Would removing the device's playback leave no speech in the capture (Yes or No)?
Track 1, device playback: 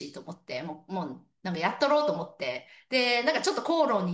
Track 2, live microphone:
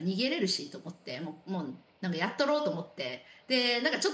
Yes